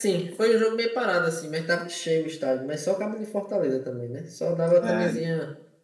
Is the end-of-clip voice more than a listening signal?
No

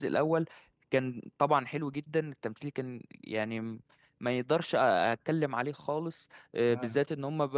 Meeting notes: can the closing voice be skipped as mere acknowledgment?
Yes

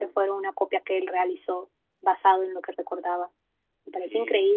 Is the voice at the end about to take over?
Yes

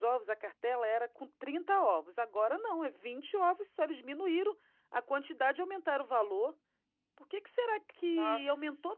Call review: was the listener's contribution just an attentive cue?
Yes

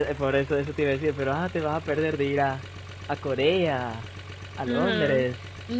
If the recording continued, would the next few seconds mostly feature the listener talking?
Yes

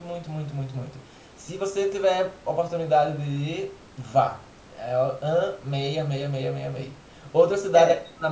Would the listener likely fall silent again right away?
Yes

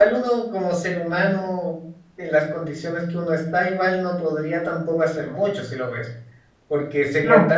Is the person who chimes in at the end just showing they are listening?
Yes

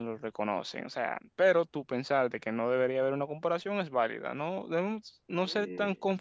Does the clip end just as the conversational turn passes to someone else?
No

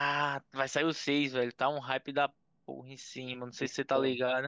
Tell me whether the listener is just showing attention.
No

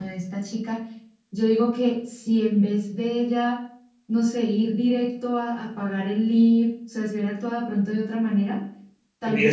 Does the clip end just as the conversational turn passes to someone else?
Yes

